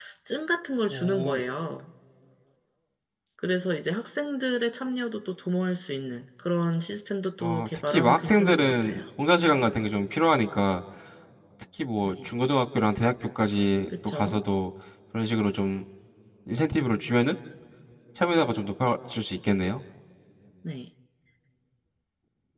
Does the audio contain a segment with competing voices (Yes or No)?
Yes